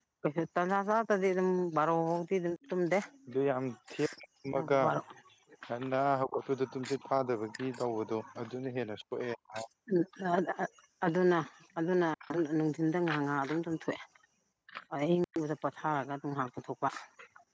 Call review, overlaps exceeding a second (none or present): none